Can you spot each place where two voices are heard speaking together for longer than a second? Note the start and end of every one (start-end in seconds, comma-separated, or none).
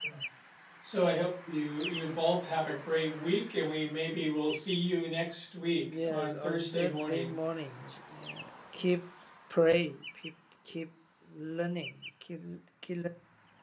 6.0-7.3